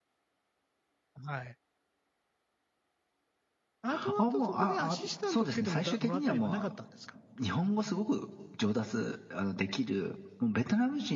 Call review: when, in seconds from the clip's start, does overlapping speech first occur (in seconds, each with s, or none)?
3.9 s